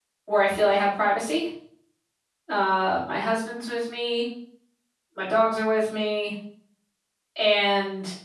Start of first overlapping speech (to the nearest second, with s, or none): none